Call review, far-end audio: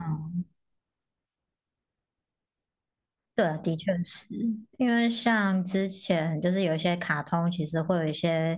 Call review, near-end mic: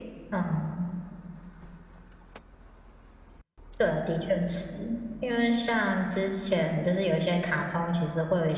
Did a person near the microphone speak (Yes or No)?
No